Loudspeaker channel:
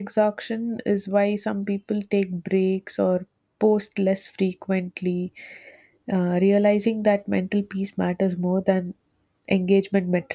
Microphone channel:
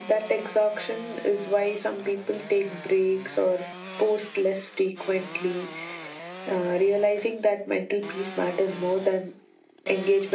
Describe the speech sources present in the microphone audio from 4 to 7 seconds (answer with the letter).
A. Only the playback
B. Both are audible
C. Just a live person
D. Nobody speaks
A